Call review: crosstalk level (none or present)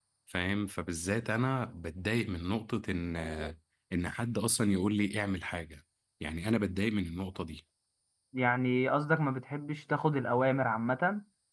none